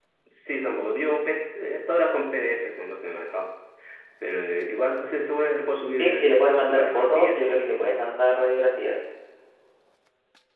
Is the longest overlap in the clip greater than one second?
Yes, from 6.0 s

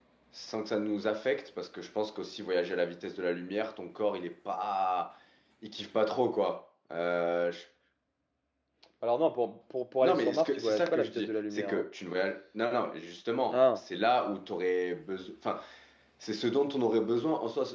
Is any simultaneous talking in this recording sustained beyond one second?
Yes, from 10.0 s

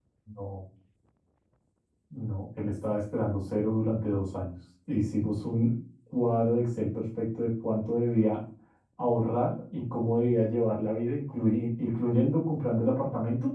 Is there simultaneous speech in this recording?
No

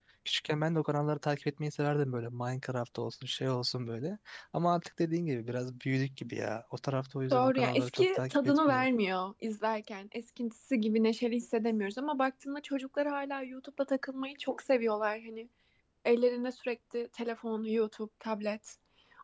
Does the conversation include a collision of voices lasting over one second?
Yes, from 7.3 s

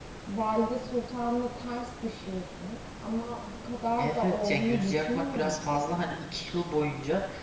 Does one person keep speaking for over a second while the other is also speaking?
Yes, from 4.0 s

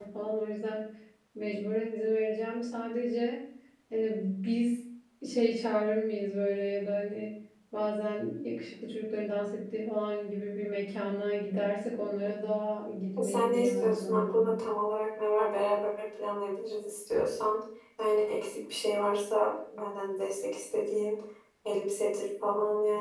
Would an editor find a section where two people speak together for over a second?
Yes, from 13.2 s

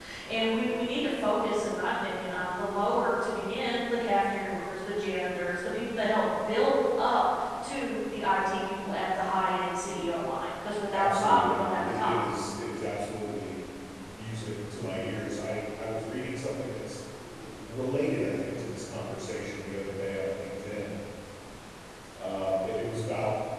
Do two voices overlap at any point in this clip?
Yes, from 10.9 s

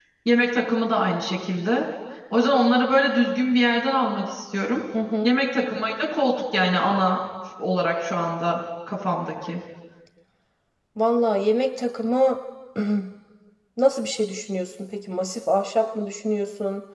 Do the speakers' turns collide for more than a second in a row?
No

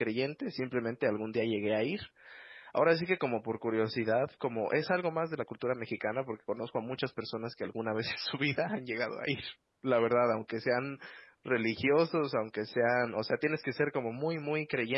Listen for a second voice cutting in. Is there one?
No

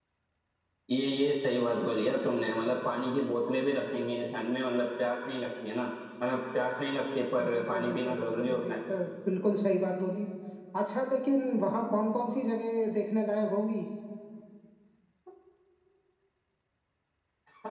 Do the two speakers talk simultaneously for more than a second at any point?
Yes, from 7.4 s

